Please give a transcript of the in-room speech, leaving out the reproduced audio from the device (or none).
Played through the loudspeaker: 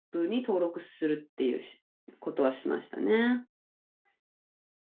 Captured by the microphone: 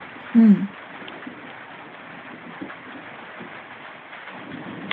うん。